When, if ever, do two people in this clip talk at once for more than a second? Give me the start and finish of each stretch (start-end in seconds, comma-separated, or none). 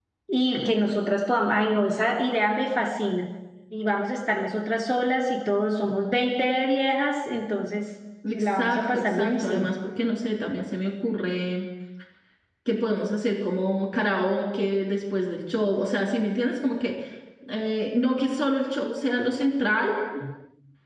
8.3-9.7